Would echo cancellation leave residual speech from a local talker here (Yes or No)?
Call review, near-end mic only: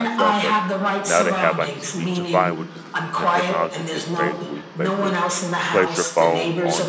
Yes